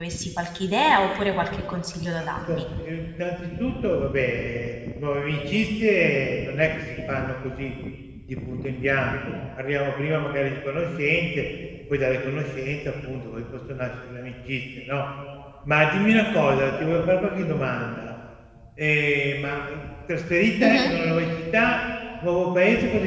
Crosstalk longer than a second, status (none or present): none